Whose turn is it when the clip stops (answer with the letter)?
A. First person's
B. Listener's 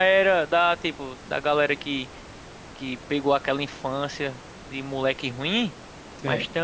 A